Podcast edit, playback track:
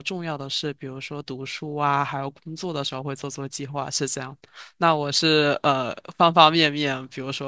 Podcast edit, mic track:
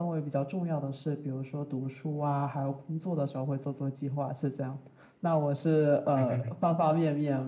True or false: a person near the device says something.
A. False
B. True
B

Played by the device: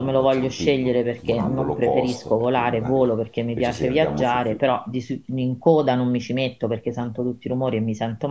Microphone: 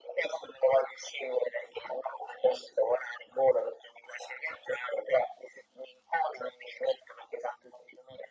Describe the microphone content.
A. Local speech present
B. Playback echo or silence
B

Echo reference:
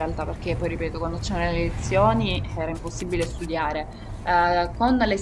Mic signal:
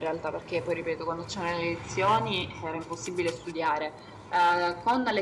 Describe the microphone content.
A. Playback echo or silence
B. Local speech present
A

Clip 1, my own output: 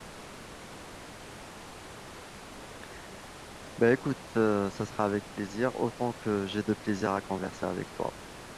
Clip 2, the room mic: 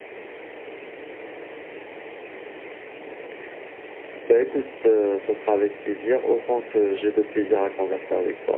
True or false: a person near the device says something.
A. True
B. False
B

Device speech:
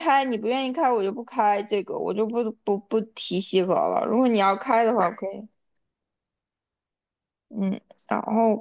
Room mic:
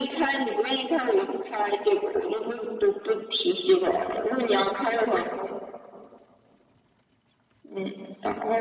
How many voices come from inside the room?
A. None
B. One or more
A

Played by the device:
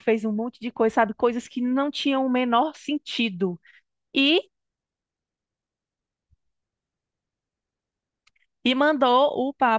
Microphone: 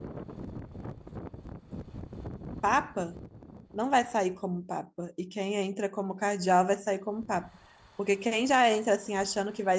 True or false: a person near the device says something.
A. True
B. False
A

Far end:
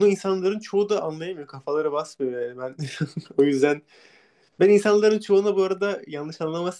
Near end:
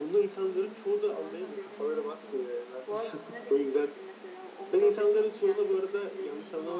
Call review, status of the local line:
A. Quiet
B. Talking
B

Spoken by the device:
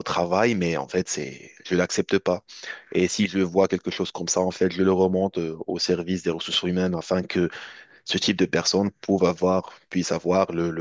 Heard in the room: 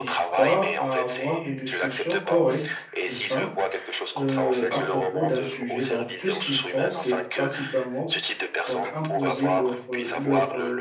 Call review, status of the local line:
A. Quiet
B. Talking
B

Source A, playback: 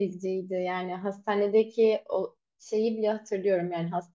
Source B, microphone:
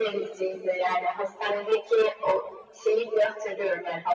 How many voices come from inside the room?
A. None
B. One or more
A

